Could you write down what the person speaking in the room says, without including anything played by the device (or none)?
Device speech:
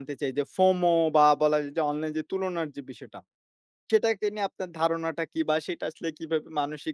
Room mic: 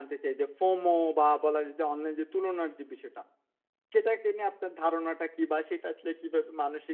none